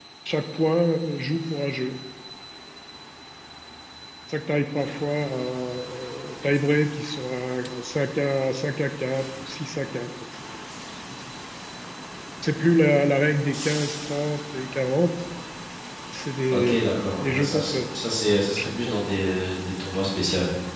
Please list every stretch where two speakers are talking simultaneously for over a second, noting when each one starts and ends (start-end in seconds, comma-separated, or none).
16.5-17.8